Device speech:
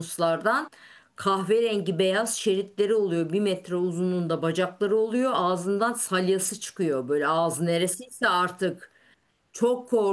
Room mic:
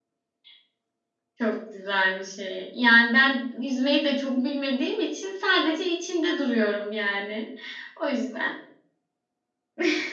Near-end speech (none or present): present